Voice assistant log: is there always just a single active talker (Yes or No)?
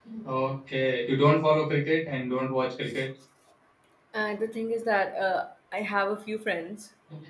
Yes